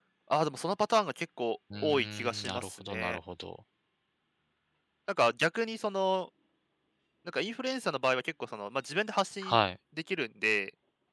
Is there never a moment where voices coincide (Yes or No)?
No